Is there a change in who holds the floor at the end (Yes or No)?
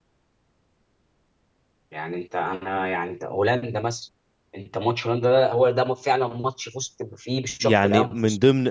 Yes